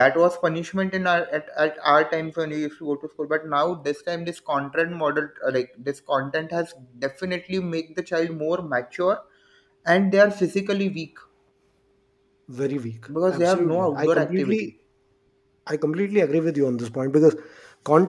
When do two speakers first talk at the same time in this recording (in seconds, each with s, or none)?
13.3 s